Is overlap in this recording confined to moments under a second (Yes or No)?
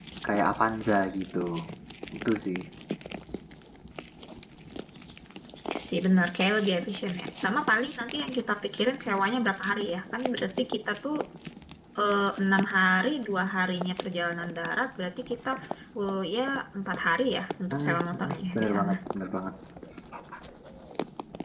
No